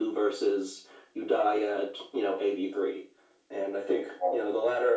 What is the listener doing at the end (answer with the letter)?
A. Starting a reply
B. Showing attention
B